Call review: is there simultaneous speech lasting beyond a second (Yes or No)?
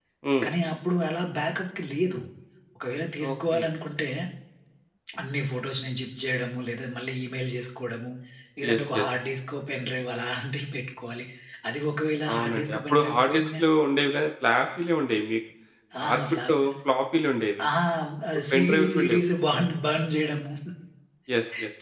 Yes